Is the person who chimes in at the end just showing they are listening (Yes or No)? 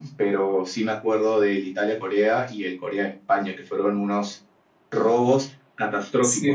No